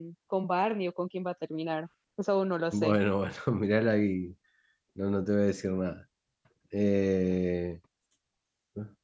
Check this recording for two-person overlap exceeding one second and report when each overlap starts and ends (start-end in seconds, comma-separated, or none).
none